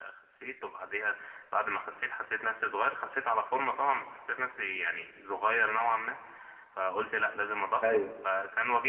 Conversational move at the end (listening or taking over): listening